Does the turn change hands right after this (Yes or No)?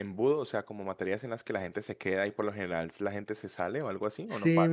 Yes